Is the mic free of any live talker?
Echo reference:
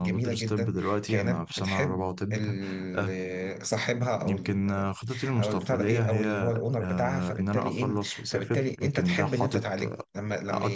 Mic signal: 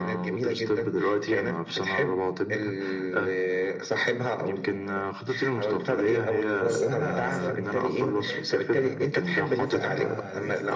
No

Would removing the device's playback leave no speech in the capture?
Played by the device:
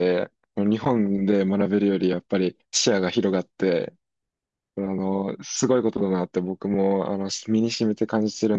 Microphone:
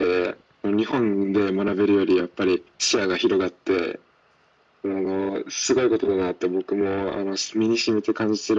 Yes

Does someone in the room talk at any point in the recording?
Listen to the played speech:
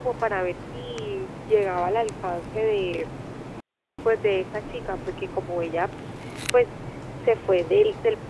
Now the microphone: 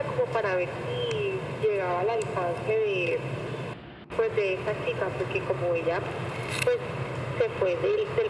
No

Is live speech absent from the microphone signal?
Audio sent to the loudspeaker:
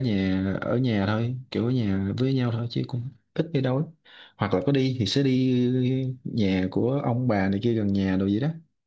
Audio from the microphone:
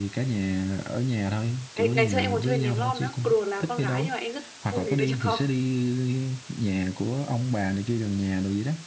No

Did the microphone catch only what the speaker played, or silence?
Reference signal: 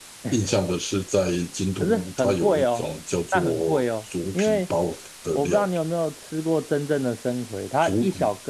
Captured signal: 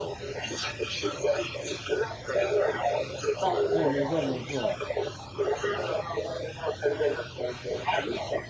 No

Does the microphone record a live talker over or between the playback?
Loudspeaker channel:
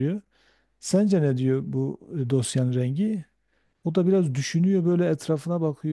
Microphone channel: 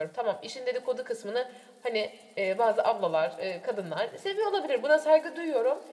Yes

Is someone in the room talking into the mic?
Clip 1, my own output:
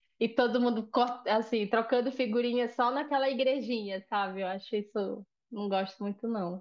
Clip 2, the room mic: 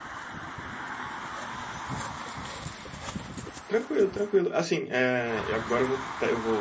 Yes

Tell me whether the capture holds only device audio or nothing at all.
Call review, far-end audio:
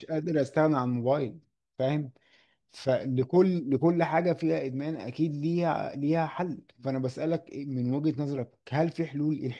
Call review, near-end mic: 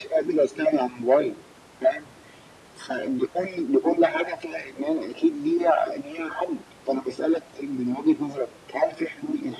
Yes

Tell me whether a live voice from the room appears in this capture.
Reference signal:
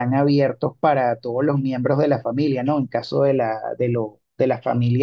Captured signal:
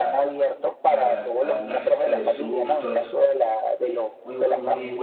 Yes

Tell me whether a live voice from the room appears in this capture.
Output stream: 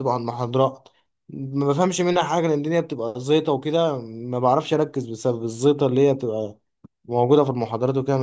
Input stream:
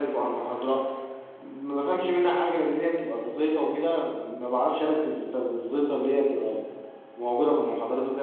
No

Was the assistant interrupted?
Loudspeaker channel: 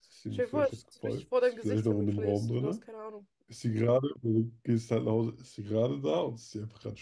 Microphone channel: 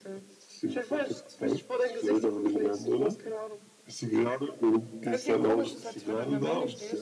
Yes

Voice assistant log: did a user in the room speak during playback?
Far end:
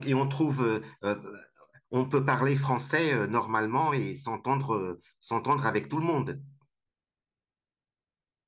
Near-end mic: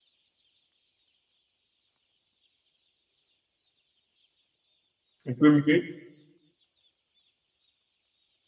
Yes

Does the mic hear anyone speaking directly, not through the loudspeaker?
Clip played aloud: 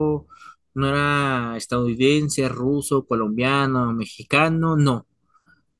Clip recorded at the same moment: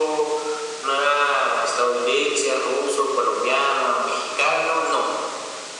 No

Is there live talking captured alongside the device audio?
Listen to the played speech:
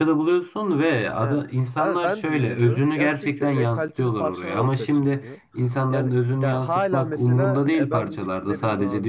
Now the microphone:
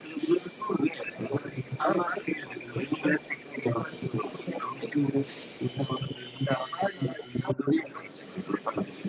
No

